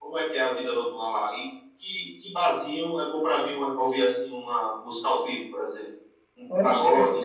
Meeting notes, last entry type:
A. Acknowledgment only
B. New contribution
B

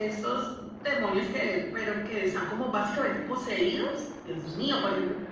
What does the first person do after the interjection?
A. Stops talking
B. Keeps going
B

